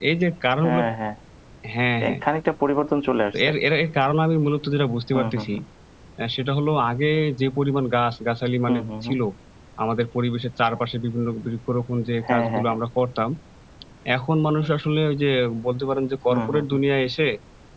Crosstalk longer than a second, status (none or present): none